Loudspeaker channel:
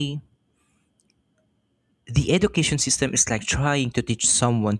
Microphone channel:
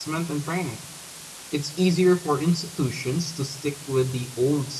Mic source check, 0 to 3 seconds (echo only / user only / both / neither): user only